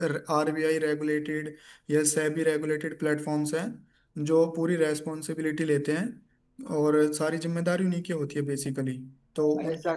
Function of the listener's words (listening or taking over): taking over